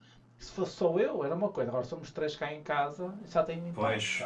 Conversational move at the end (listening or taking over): taking over